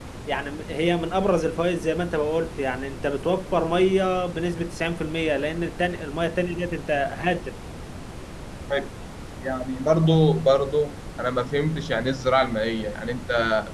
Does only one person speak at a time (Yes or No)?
Yes